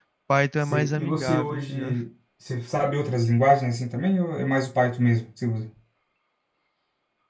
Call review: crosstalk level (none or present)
present